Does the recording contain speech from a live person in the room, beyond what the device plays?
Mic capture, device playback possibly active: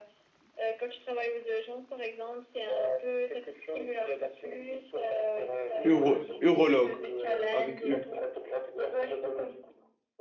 Yes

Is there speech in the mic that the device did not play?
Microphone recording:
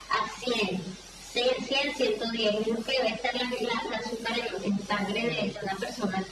Yes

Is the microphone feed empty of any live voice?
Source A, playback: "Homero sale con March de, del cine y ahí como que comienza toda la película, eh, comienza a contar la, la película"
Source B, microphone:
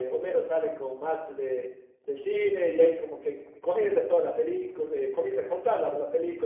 Yes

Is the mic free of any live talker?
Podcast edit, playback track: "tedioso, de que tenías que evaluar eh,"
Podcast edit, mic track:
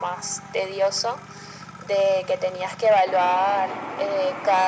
Yes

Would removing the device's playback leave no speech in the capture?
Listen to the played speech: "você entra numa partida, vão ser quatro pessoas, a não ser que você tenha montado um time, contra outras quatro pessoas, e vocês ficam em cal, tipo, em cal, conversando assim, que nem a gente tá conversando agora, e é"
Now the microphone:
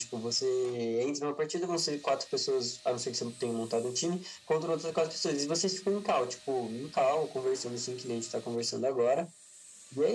Yes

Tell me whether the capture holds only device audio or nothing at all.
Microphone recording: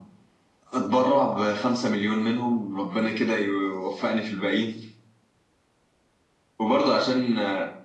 Yes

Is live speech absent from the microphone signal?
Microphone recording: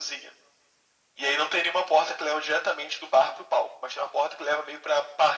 Yes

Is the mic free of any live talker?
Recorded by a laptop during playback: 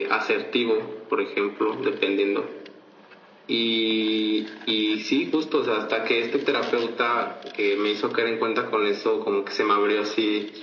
Yes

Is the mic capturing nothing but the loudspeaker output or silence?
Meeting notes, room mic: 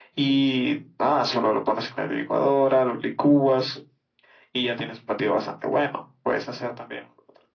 Yes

